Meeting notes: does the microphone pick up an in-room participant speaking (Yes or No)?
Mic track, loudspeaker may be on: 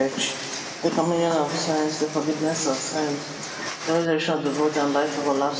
Yes